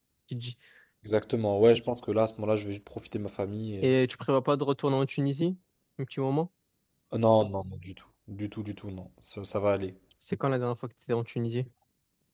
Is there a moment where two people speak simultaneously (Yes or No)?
No